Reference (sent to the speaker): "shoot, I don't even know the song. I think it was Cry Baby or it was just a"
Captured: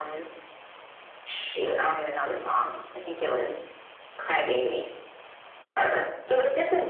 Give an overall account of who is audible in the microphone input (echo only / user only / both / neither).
echo only